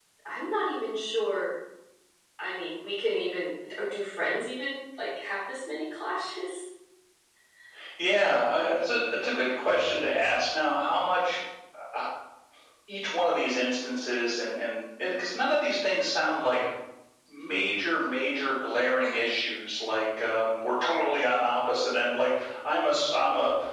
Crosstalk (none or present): none